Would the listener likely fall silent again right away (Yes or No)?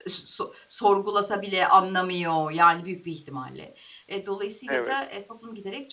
Yes